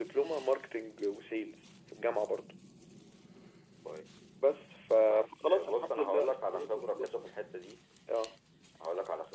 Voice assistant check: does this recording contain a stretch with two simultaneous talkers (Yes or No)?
Yes